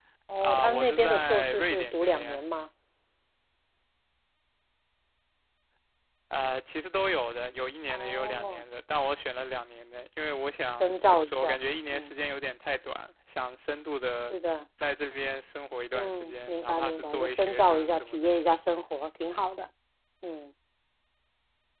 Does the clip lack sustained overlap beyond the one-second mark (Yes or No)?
No